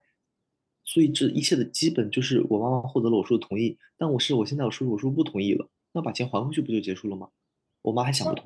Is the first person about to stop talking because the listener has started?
Yes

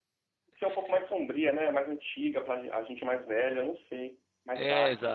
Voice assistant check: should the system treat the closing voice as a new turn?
Yes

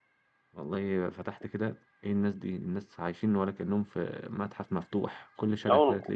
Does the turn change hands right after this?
No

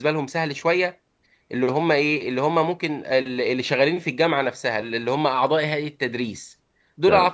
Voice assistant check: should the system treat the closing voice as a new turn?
No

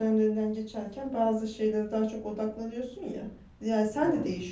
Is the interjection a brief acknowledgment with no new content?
Yes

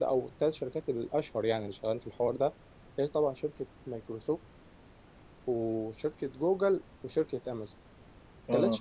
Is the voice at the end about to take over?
No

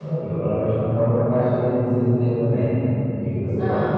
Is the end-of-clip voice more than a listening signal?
No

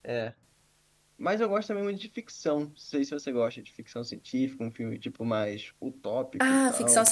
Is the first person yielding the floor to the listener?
Yes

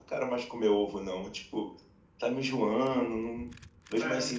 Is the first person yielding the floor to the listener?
No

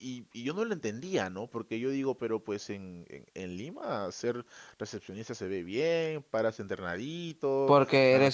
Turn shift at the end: Yes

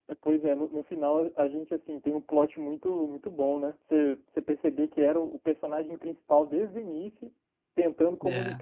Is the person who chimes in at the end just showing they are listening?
Yes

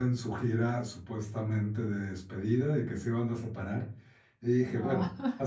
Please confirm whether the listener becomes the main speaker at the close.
No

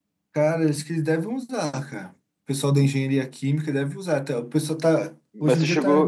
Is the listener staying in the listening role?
No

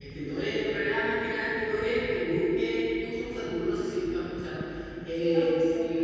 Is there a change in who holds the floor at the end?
No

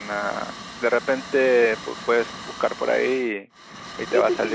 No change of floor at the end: No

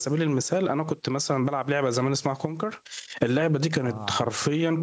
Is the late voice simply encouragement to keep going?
Yes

